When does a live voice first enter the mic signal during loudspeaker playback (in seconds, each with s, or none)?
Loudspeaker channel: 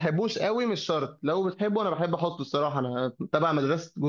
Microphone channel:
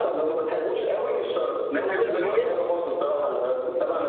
1.7 s